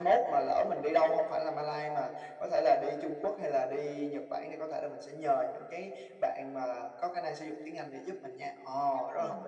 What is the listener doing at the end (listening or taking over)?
taking over